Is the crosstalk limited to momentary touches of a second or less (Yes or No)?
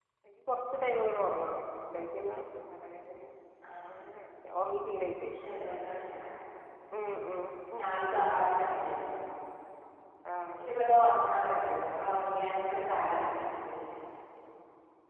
Yes